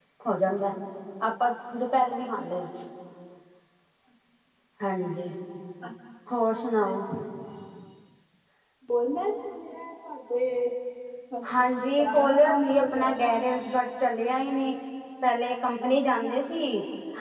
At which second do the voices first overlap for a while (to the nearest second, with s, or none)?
11 s